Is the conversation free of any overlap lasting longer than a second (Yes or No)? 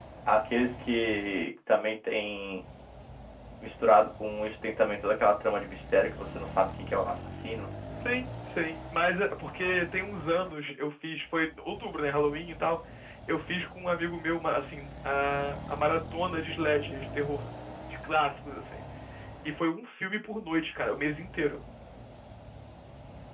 Yes